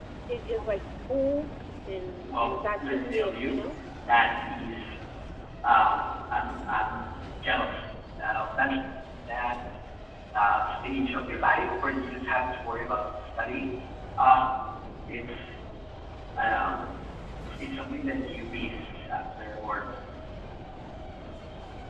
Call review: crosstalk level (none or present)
present